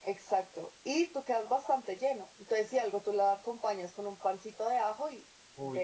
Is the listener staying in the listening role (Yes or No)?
No